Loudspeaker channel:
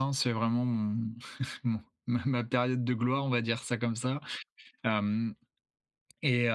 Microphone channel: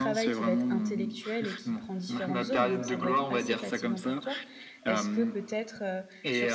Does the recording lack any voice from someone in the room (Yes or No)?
No